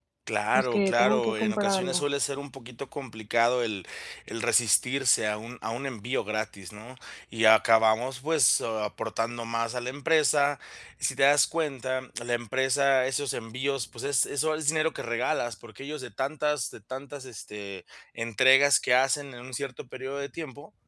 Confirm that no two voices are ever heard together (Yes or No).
No